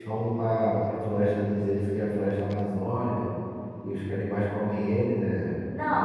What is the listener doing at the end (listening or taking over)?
taking over